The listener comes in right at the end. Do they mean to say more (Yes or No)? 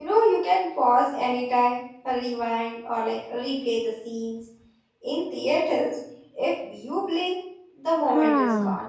Yes